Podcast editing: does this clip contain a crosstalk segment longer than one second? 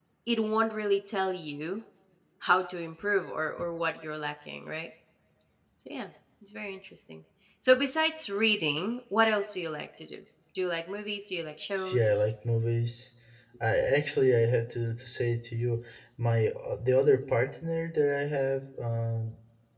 No

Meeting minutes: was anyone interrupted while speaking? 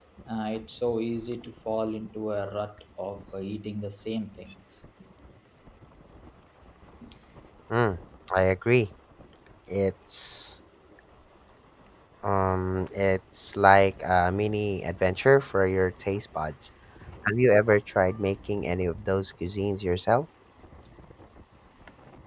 No

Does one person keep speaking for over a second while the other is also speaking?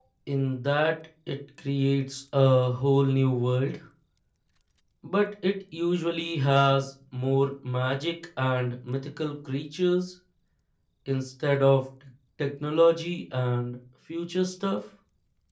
No

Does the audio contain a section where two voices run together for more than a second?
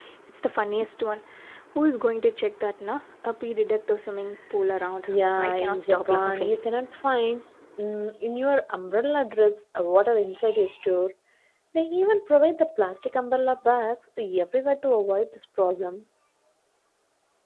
Yes, from 5.1 s

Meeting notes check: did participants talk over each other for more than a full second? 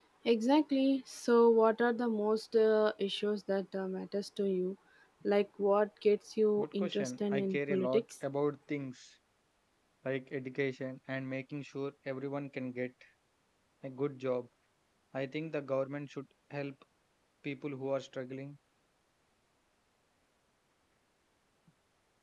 Yes, from 6.6 s

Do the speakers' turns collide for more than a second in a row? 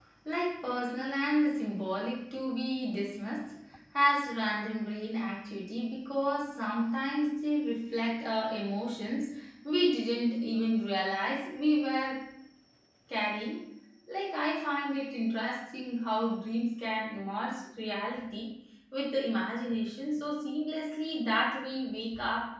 No

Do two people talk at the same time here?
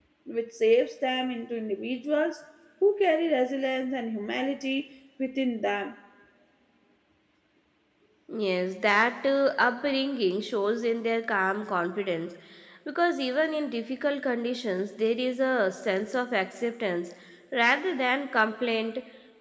No

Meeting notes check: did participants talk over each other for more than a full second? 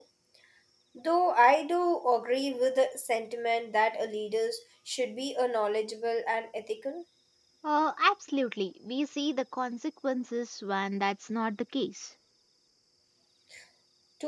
No

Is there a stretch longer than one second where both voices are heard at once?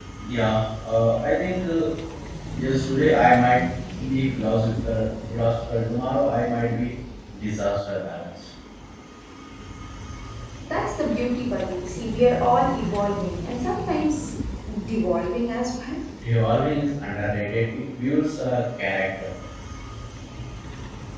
No

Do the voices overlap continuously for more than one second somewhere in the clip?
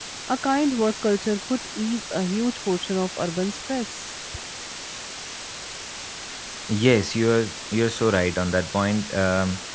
No

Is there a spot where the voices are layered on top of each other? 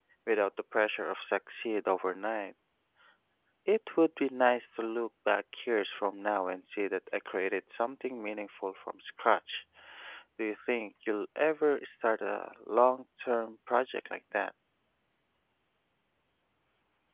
No

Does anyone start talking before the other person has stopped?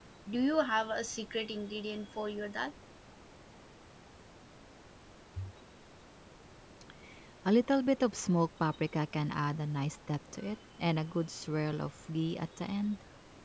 No

